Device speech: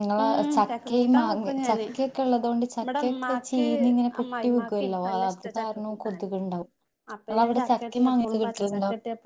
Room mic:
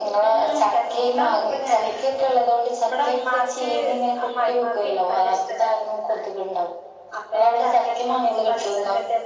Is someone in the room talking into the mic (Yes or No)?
No